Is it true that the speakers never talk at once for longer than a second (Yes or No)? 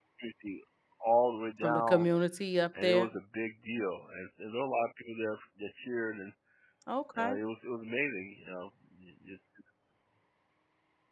Yes